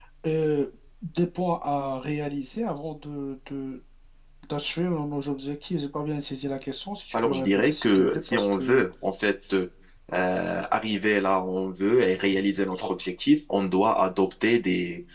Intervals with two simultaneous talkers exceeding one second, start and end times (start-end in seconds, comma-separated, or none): 7.1-8.8